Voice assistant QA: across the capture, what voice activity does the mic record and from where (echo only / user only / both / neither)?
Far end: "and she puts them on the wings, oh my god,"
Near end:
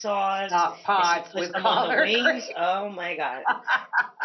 both